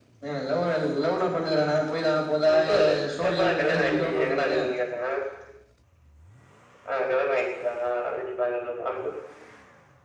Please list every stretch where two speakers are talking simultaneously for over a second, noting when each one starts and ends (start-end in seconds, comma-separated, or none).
3.3-4.6